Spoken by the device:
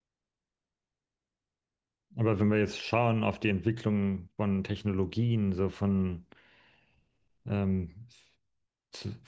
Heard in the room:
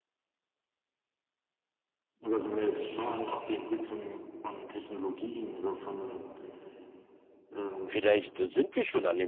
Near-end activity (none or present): present